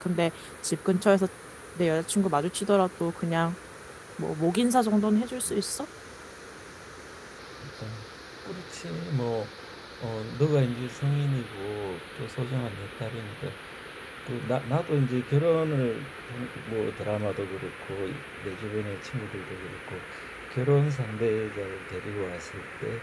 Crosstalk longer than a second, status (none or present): none